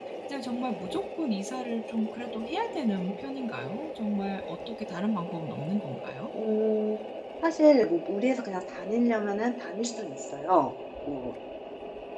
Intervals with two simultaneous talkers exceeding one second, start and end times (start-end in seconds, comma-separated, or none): none